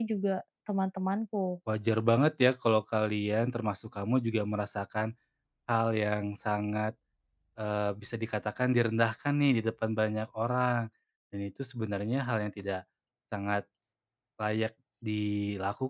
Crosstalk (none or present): none